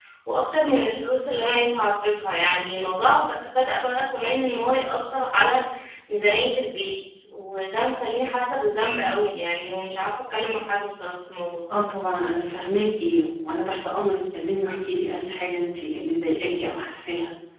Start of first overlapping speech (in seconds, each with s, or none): none